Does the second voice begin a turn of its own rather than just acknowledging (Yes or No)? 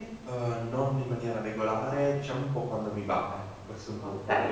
Yes